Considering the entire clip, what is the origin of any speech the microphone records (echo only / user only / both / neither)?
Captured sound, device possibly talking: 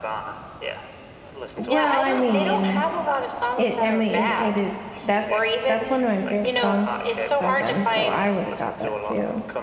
both